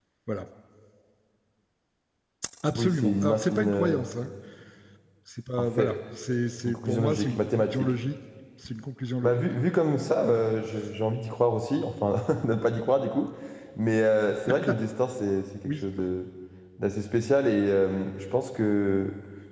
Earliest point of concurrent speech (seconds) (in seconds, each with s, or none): 2.8 s